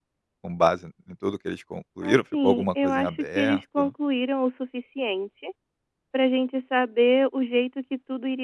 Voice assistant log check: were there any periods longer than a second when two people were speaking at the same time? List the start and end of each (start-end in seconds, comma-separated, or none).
2.0-3.9